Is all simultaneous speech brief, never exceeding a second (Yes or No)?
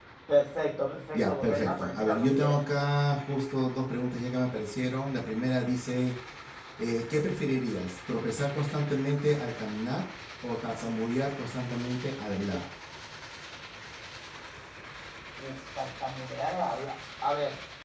No